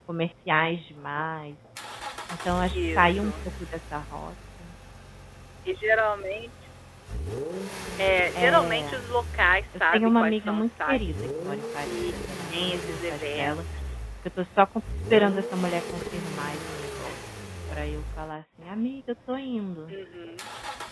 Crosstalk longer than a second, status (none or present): present